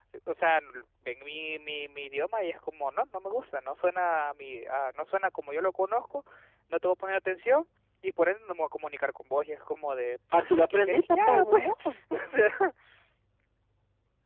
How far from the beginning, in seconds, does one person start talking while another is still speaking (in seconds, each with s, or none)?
10.3 s